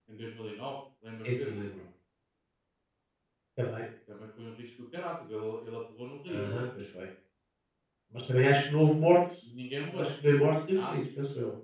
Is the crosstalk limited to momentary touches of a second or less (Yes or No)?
Yes